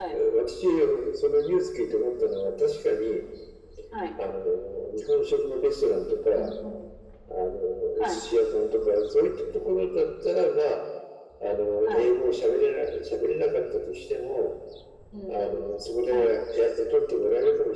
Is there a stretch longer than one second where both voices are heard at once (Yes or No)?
No